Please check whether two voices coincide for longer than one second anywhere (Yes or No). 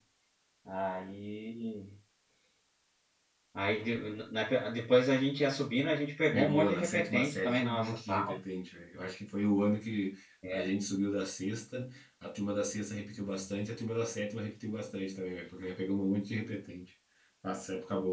Yes